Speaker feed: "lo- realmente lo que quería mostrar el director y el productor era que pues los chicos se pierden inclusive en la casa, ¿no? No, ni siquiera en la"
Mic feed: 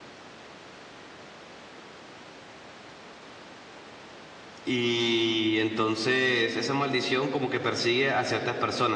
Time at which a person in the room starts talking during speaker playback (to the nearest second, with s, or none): 5 s